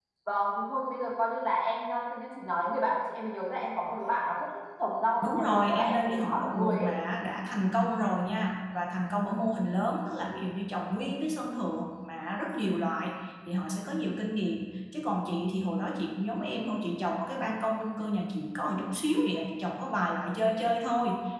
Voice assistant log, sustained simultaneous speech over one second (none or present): present